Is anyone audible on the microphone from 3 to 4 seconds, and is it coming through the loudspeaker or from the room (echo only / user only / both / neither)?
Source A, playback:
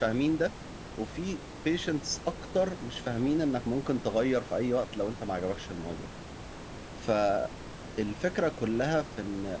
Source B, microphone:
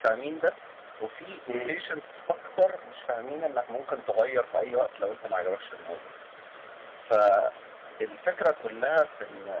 echo only